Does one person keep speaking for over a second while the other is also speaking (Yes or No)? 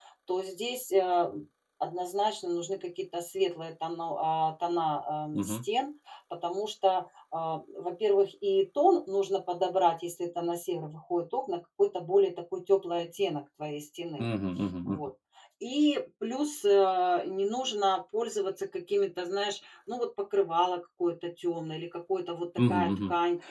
No